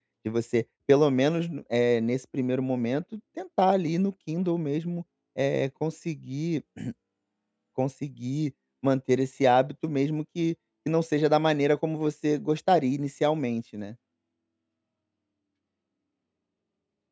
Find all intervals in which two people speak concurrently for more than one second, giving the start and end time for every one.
none

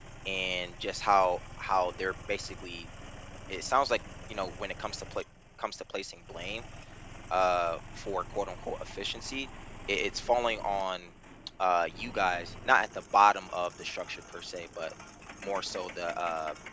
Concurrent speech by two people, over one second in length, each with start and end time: none

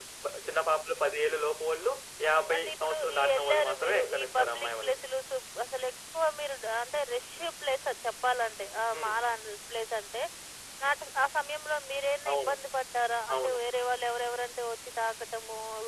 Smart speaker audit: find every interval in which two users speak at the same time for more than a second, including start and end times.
2.5-5.0

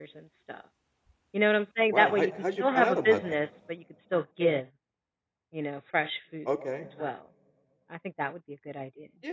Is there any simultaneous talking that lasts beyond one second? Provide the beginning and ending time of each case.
1.9-3.2

